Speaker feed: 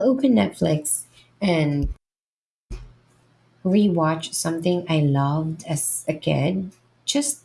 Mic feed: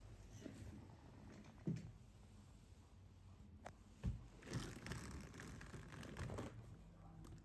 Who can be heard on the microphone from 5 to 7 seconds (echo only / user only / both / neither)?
neither